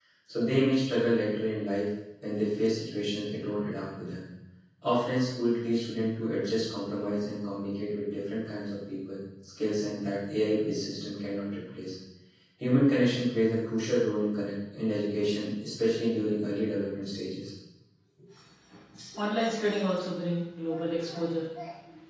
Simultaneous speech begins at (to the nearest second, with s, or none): none